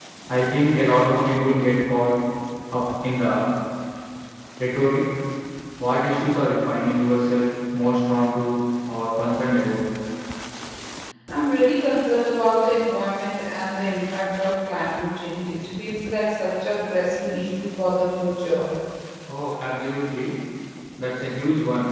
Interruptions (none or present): none